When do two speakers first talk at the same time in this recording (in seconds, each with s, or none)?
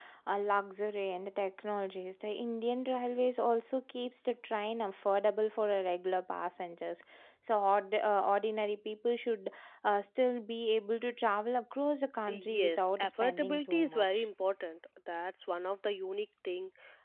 12.3 s